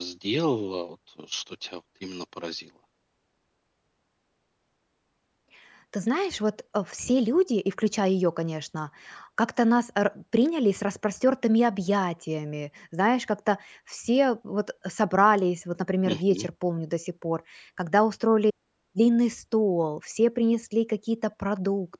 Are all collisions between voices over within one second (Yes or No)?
Yes